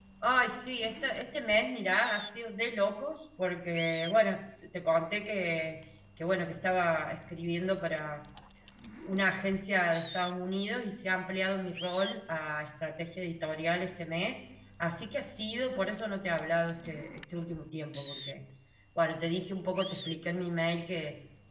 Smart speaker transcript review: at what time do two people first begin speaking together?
none

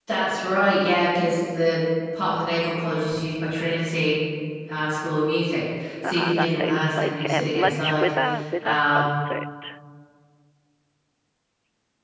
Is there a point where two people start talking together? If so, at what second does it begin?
6.0 s

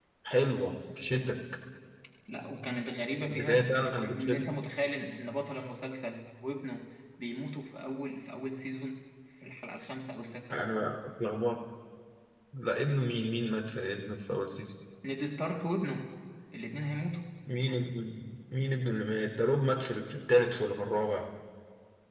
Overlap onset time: 3.2 s

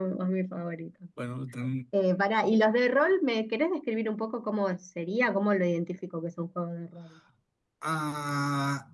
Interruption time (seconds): none

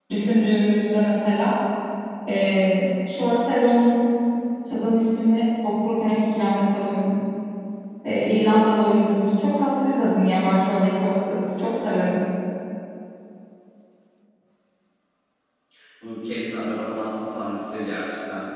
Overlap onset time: none

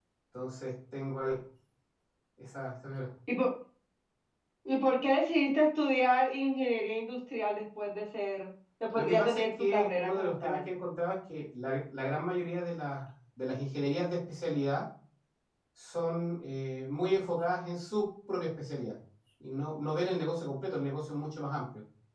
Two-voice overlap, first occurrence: 8.9 s

